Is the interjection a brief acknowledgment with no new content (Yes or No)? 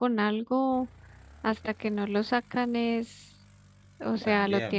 Yes